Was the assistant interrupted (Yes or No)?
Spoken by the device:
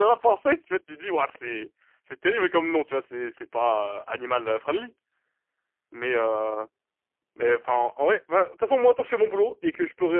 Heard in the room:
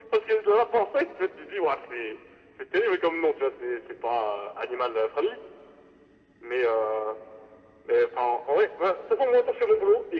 No